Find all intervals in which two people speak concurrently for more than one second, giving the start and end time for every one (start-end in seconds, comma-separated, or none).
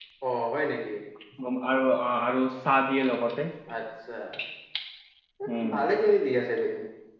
none